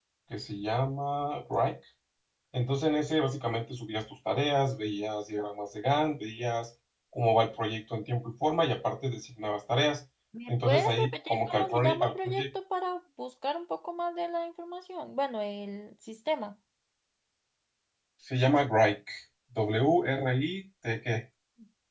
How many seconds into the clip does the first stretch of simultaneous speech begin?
10.5 s

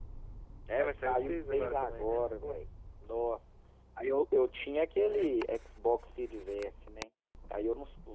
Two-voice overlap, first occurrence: 0.8 s

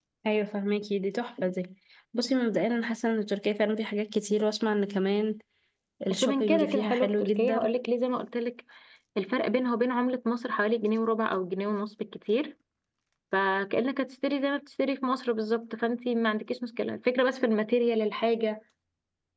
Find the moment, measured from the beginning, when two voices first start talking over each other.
6.1 s

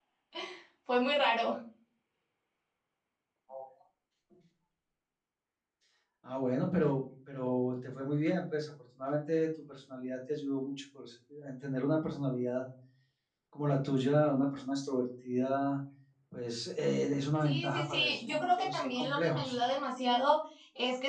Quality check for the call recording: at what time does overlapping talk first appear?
17.4 s

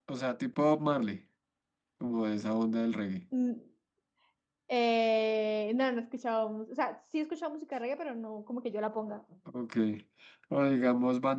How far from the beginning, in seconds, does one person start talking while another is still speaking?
none

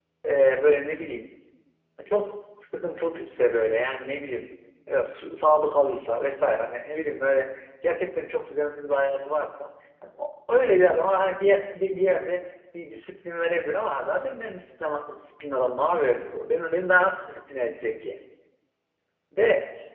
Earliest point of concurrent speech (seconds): none

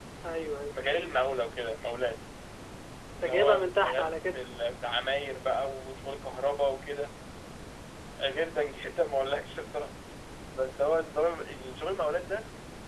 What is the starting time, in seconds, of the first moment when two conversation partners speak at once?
3.2 s

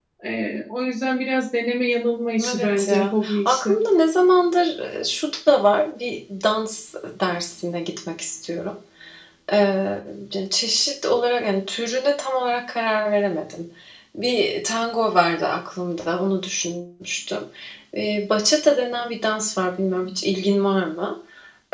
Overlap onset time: 2.4 s

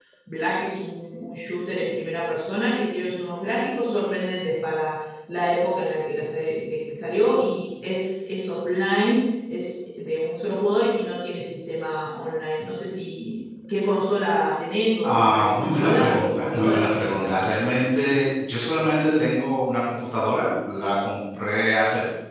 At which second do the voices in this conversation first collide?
15.0 s

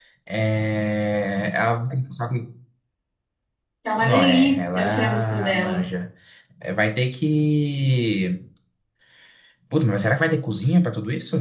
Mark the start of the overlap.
4.0 s

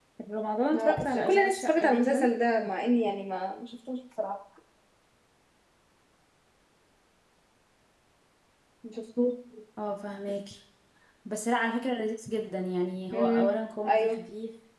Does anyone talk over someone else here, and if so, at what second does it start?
0.8 s

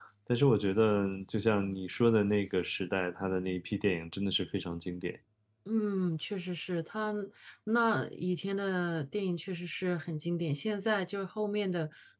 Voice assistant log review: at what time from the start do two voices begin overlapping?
none

